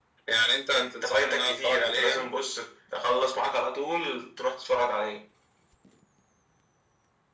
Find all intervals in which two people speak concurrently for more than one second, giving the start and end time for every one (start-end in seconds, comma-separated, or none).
0.7-2.3